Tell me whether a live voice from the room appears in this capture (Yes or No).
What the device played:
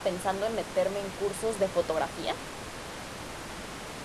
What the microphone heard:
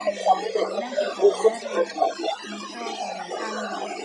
Yes